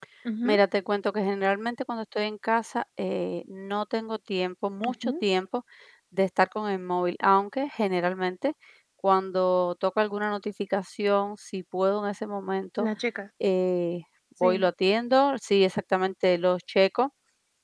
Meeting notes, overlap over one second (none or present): none